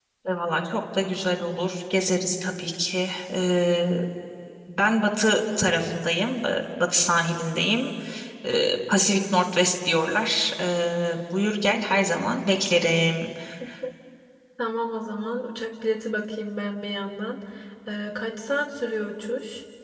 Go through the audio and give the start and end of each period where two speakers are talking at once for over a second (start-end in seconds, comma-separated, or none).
none